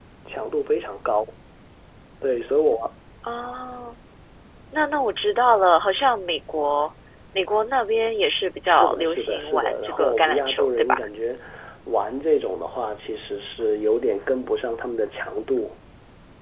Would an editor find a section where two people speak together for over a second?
Yes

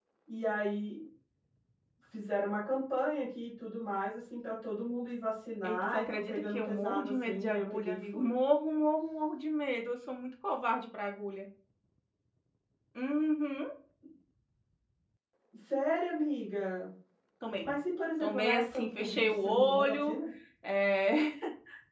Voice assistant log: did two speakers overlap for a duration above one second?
Yes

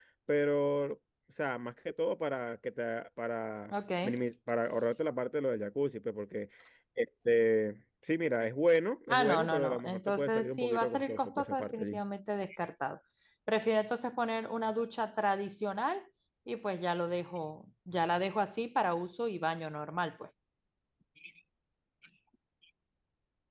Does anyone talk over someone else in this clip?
Yes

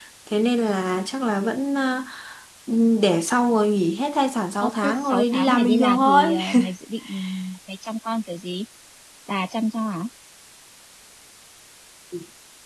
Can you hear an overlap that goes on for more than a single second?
Yes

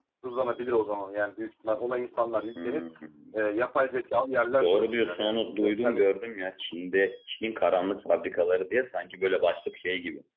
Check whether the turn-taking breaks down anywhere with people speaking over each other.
Yes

